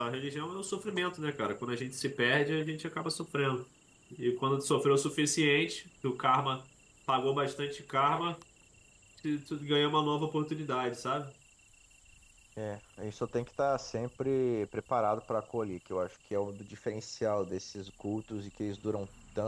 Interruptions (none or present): none